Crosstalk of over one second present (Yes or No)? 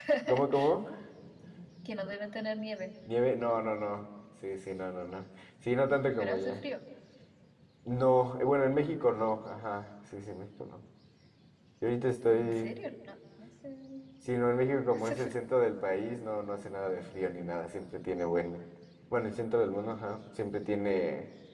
No